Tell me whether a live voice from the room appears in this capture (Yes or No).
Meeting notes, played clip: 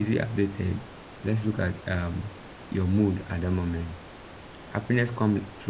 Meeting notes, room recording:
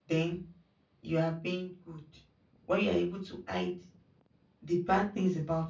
Yes